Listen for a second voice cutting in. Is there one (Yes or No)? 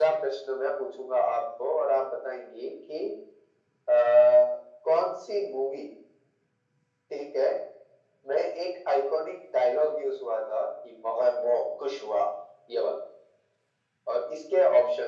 No